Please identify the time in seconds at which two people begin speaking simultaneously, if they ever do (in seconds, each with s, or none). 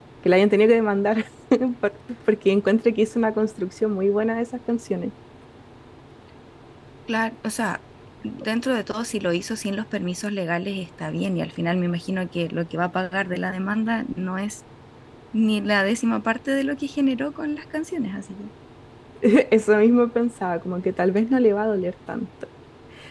none